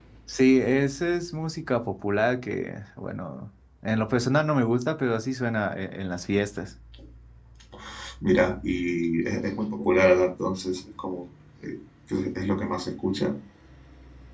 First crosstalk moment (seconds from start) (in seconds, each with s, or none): none